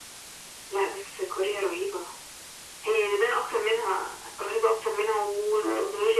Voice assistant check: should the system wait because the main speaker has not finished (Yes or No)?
Yes